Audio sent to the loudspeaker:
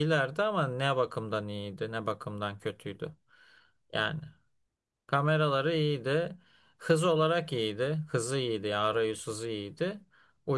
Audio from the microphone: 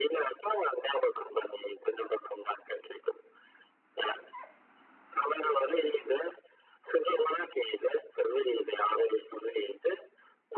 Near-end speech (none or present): none